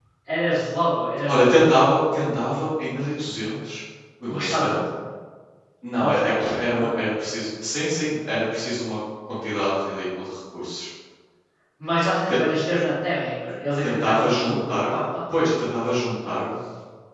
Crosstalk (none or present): present